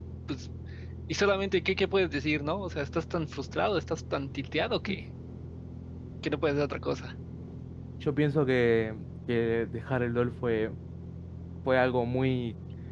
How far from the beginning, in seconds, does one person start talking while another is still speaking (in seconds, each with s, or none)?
none